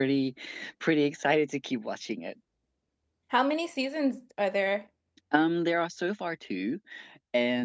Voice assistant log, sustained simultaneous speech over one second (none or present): none